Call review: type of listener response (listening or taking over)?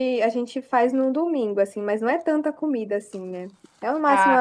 listening